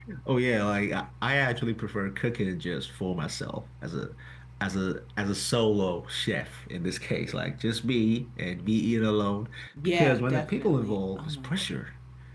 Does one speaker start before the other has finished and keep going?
Yes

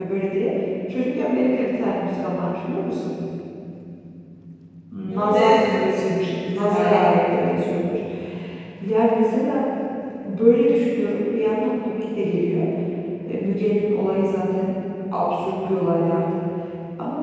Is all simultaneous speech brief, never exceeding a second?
No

